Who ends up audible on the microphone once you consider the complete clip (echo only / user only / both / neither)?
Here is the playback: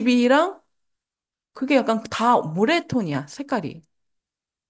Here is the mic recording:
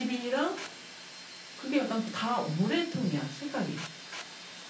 echo only